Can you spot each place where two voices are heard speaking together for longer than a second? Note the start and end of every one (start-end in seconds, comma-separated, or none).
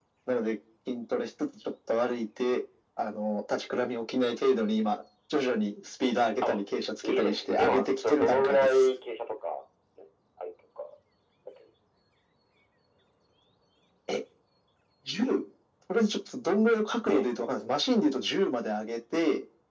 7.0-8.9